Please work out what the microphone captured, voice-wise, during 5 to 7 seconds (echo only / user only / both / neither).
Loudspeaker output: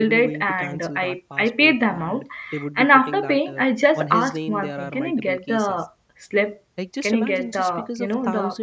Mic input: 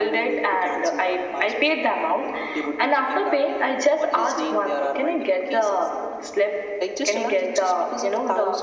echo only